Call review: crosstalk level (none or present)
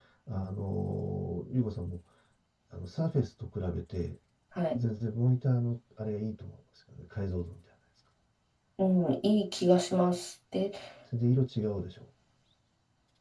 none